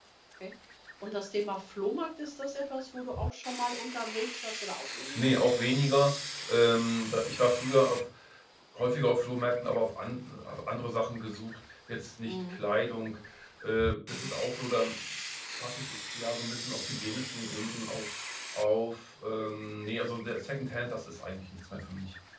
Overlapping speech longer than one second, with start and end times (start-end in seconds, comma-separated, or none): none